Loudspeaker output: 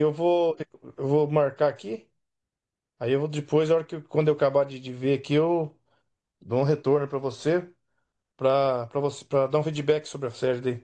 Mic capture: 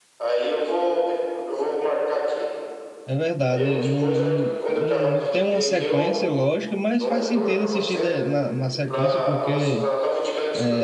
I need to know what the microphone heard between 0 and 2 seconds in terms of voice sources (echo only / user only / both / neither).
echo only